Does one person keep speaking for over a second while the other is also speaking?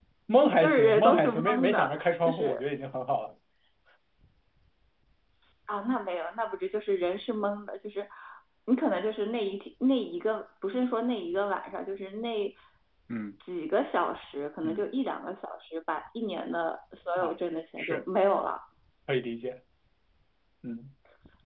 Yes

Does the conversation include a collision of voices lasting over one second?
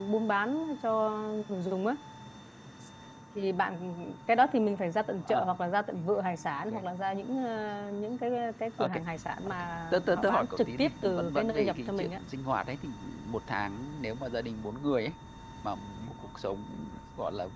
Yes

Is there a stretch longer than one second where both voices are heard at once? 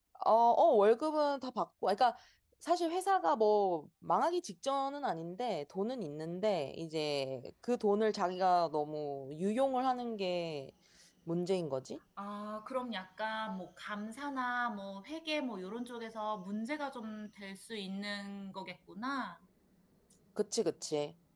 No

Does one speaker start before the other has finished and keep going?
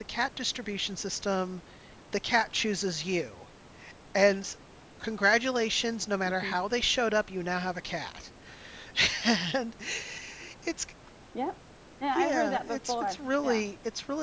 Yes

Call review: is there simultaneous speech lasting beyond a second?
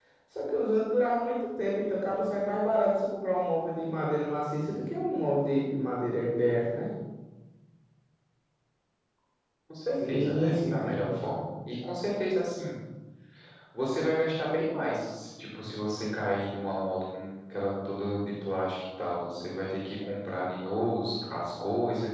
Yes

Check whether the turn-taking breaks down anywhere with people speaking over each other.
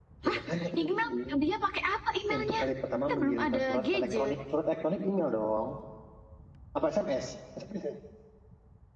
Yes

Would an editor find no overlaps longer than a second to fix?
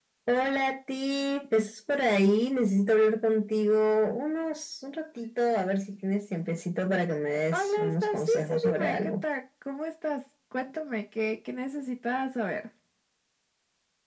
No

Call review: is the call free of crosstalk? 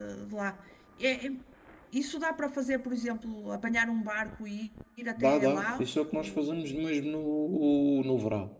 No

